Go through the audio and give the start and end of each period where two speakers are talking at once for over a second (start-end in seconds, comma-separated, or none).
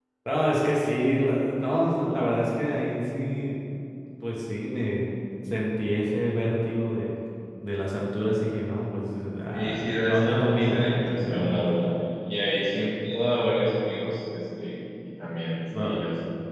9.5-11.8